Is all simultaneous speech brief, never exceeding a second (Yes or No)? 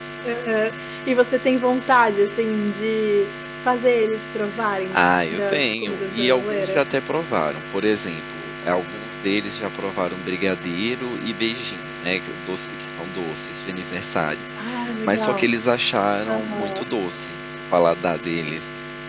No